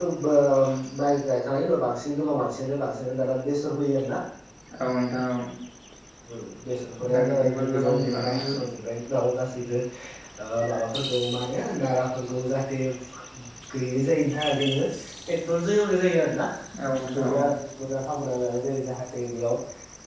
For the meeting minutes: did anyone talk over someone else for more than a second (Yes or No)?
Yes